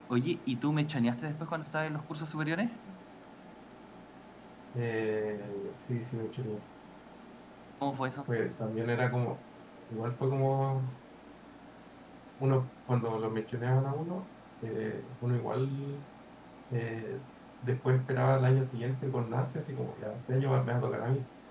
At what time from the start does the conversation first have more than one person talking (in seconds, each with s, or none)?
none